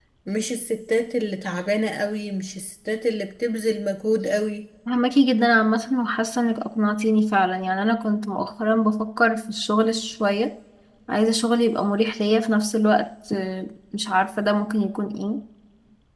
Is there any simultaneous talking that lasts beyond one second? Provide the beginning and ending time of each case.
none

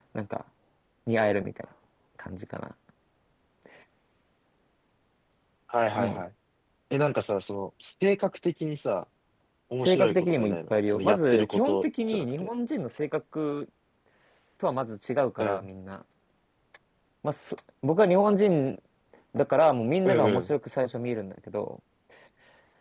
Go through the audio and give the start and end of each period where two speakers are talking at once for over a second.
9.8-12.5

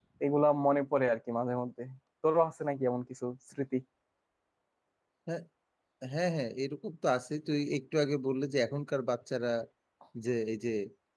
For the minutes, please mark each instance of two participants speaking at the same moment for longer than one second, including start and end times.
none

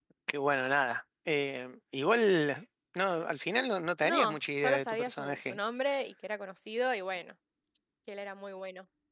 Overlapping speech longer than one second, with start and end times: 4.0-5.6

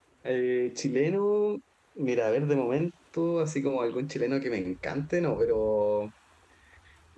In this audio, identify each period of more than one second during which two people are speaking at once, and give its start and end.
none

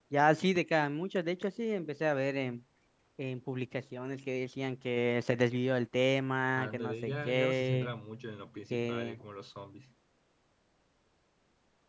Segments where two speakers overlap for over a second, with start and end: 6.6-7.9

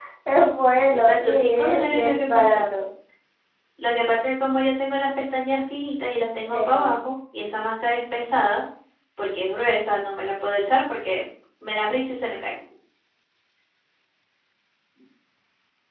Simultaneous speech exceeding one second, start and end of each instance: 0.9-2.6

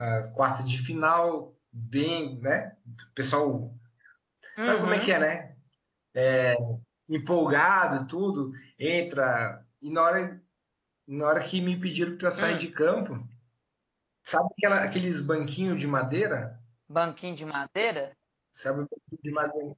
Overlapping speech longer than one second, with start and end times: none

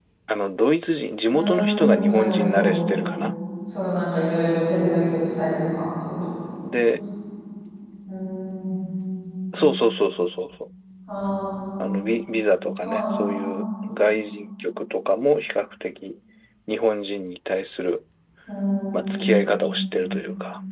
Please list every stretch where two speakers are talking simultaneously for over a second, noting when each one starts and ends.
1.4-2.8

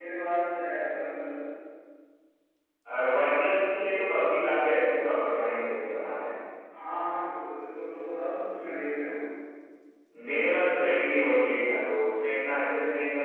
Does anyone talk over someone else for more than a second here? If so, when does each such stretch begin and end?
none

